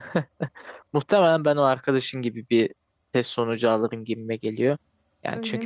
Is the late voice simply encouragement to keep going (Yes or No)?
Yes